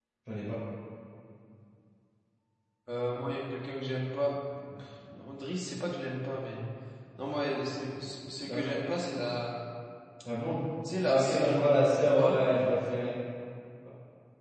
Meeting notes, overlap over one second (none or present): none